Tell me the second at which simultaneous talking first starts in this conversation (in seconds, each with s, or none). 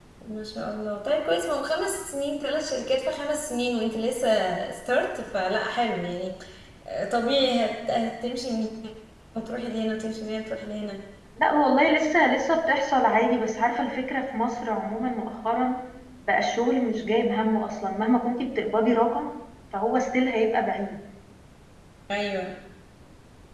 none